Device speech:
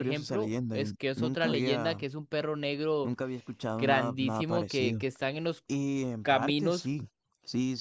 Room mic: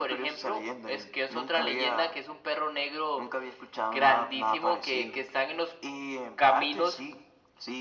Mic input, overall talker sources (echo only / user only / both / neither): echo only